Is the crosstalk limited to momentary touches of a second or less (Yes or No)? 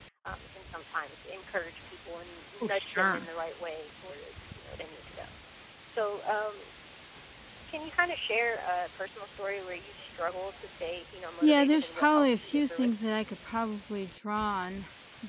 No